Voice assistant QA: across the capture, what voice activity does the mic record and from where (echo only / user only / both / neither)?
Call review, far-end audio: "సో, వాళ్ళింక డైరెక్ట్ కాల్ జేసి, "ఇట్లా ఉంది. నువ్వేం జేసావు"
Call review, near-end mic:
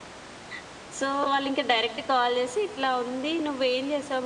echo only